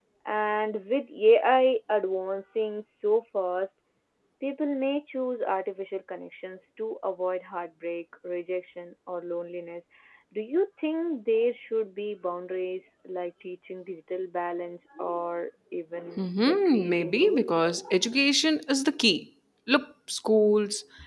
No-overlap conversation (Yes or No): No